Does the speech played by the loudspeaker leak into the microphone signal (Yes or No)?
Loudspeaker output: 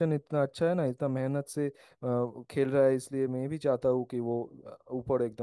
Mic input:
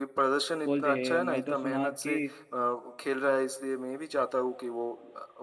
Yes